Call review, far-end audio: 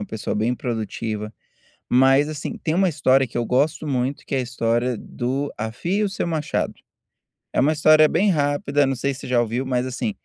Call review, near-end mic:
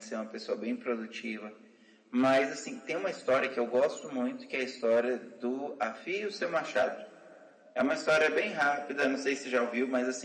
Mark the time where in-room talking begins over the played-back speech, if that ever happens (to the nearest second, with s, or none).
none